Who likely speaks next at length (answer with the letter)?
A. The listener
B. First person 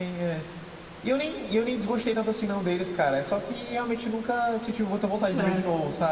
A